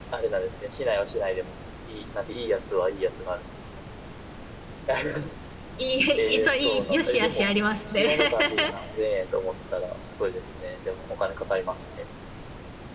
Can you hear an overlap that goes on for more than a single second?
Yes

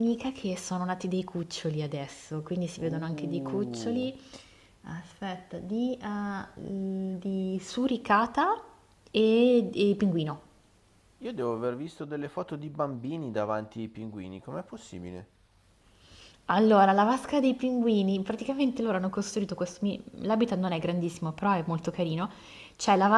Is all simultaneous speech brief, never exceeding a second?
No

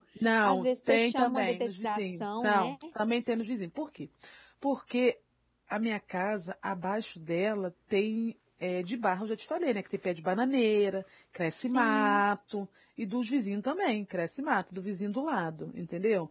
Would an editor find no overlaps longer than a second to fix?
No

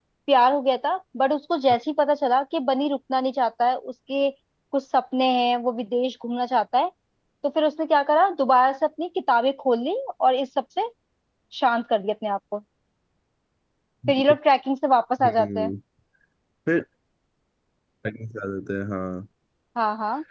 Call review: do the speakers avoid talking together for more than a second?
Yes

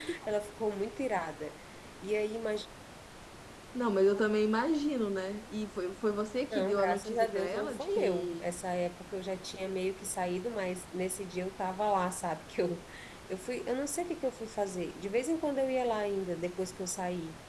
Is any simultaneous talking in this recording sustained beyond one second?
Yes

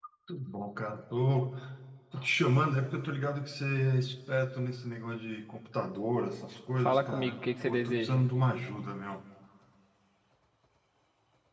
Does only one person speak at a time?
No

